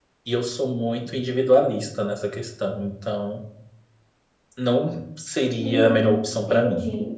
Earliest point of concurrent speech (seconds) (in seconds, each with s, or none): 5.6 s